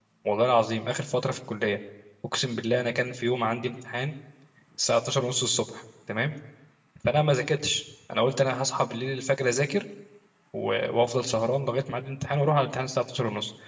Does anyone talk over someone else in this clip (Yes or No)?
No